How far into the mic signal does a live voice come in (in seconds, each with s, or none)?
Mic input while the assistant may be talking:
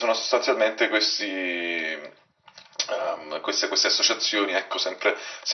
none